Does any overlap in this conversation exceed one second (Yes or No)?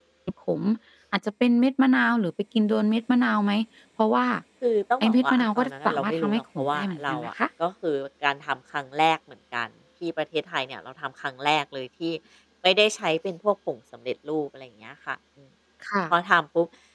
Yes